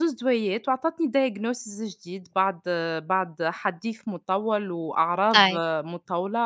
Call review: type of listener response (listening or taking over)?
listening